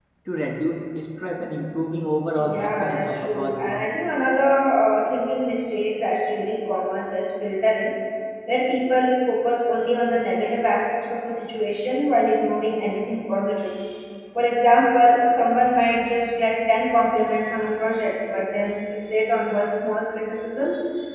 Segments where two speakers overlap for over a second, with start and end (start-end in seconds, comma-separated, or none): 2.3-3.8